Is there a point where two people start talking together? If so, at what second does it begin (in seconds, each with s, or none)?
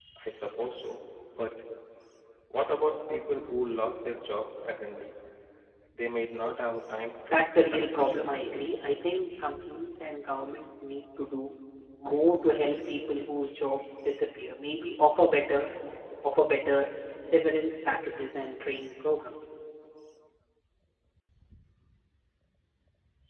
7.3 s